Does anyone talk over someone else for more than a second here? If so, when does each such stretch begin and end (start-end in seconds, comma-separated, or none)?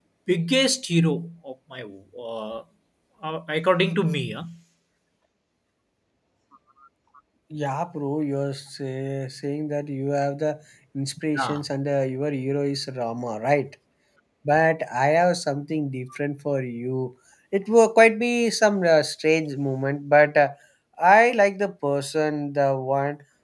none